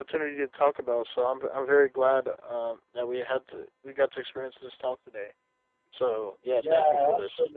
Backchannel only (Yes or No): No